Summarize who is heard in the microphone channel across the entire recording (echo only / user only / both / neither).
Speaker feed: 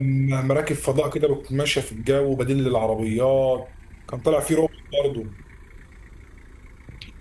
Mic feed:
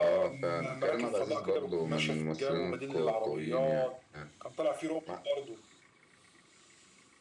both